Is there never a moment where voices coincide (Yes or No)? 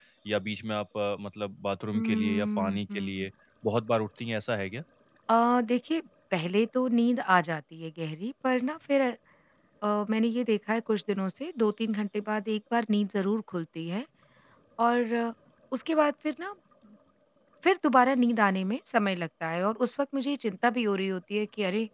No